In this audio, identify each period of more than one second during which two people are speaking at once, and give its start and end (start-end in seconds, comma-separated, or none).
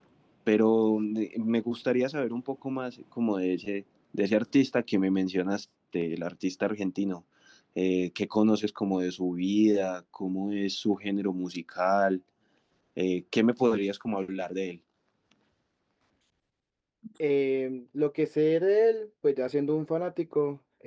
none